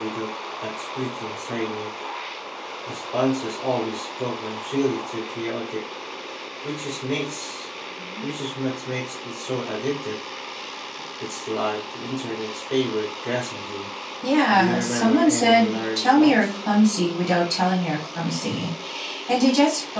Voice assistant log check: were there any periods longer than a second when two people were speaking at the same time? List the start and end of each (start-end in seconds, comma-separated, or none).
14.5-16.5